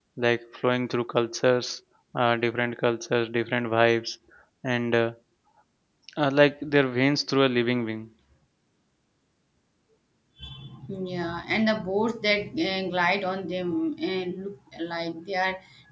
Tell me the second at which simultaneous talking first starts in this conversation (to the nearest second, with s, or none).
none